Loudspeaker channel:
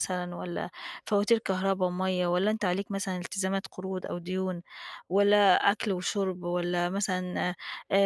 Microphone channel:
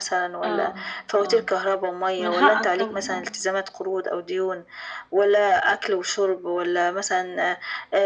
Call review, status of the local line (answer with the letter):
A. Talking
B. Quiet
A